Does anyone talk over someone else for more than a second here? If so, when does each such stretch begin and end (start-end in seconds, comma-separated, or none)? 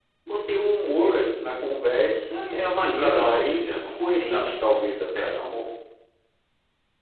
2.8-4.5